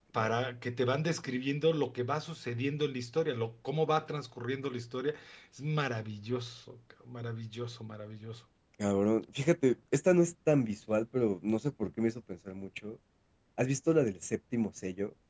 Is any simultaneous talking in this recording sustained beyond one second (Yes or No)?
No